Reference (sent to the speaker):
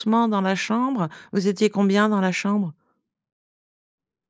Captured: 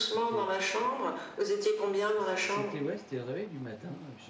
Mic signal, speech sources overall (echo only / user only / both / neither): both